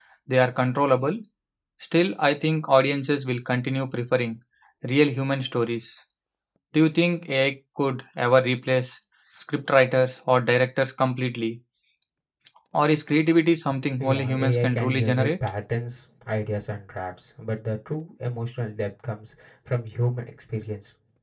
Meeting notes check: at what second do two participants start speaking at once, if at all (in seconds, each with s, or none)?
14.0 s